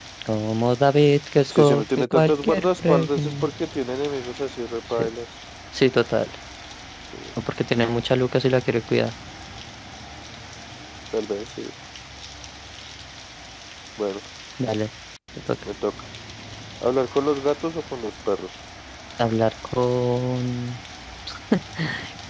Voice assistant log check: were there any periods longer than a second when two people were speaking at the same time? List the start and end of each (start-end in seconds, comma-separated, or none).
1.5-3.5